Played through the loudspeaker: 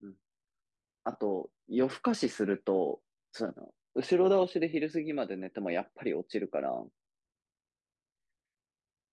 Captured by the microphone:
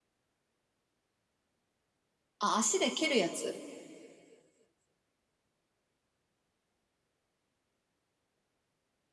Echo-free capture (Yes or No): Yes